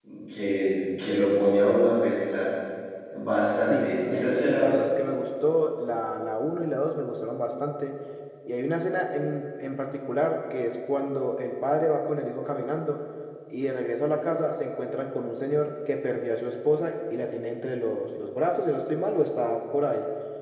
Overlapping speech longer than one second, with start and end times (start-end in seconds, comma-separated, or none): 3.7-4.9